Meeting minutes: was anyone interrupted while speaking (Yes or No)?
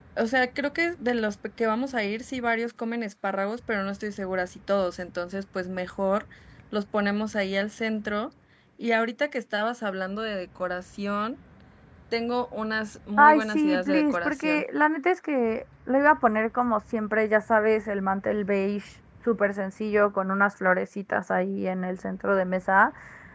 Yes